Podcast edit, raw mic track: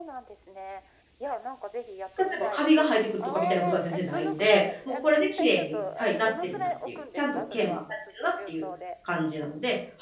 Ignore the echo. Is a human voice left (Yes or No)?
Yes